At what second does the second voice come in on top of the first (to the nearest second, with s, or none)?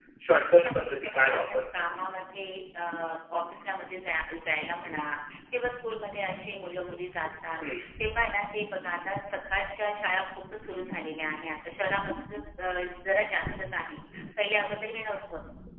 1 s